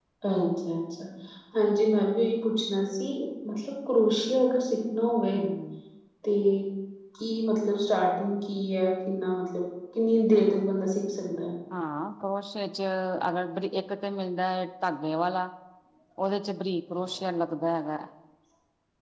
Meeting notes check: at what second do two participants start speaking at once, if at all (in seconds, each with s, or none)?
none